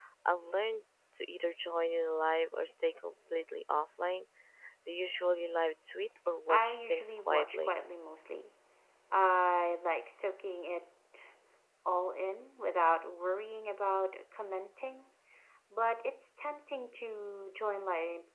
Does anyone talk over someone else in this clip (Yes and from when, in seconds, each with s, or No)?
Yes, from 6.5 s